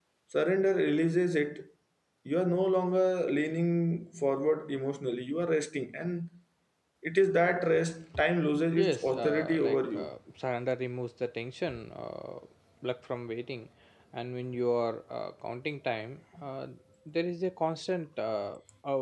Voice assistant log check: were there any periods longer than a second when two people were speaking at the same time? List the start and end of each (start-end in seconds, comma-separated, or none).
8.8-10.1